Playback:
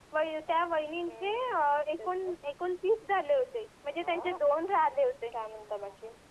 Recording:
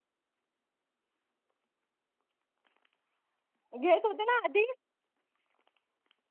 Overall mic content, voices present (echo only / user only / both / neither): user only